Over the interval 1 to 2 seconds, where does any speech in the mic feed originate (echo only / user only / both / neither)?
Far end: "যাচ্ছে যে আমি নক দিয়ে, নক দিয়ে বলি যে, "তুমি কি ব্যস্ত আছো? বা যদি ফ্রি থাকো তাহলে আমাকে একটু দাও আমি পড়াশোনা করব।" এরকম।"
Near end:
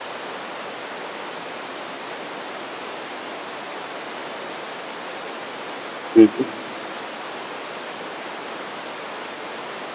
neither